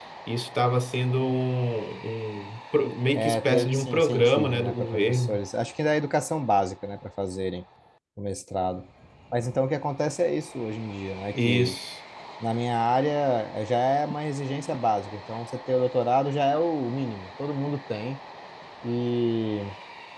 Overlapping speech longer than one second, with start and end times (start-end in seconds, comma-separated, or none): 3.1-5.4